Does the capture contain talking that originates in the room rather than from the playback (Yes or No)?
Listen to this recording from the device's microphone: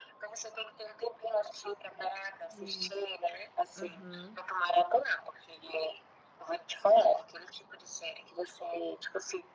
Yes